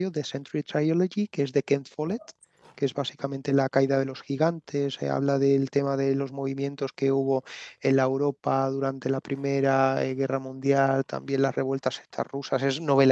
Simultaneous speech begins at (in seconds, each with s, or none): none